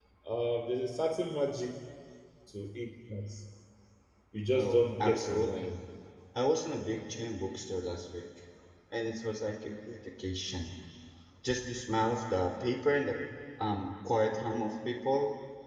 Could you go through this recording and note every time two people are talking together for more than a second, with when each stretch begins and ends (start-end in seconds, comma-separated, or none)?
4.6-5.8